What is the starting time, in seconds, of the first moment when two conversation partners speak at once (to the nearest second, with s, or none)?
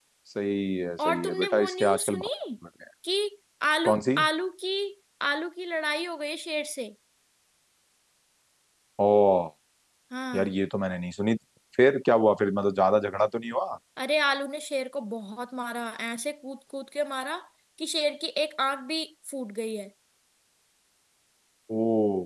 1 s